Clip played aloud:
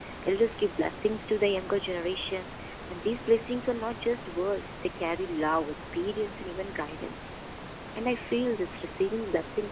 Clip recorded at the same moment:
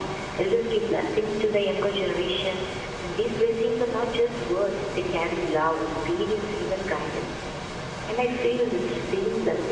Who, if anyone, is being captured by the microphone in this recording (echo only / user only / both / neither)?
echo only